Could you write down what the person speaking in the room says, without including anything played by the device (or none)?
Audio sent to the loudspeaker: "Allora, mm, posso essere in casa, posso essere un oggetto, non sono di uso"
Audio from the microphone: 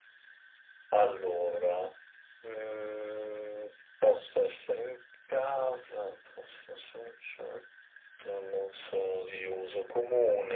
none